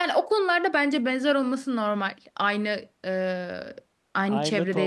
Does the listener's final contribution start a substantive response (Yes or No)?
Yes